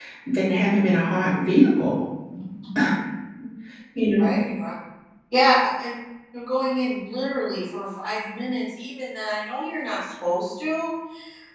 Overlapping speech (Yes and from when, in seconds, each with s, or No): No